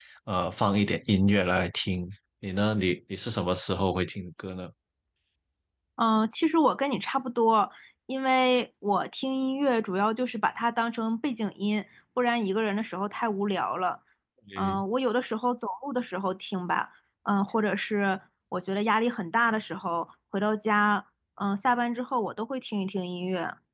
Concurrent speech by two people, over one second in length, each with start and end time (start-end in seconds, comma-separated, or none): none